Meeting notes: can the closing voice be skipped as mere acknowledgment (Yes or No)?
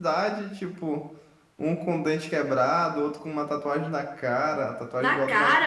Yes